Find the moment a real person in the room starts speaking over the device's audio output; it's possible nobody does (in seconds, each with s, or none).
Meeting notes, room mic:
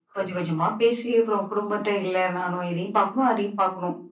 none